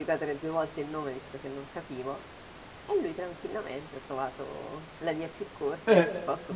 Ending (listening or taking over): taking over